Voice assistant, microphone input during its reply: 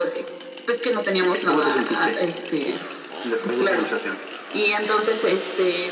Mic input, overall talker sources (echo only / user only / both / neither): echo only